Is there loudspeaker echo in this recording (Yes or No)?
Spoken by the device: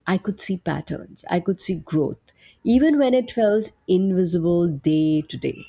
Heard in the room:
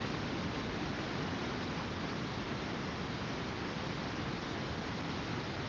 No